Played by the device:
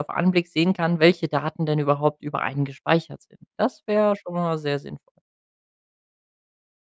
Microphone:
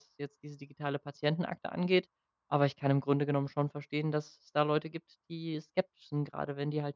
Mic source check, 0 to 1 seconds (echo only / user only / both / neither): user only